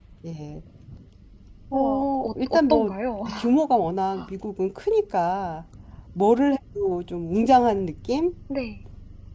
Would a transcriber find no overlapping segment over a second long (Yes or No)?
No